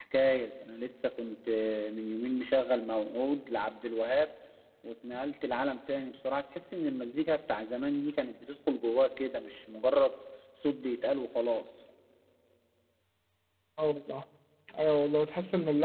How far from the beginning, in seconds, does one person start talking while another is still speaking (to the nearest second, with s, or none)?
none